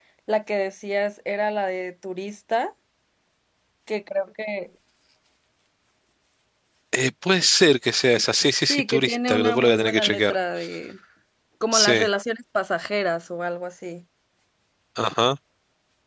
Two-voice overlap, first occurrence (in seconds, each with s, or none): 8.6 s